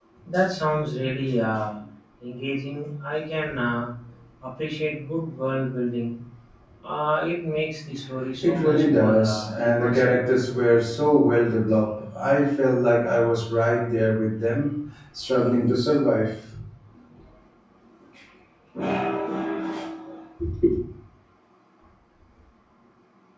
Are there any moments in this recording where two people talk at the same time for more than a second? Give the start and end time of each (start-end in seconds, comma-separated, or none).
8.4-10.2